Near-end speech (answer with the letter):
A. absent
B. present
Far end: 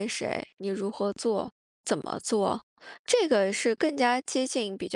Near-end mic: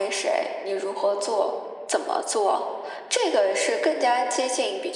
A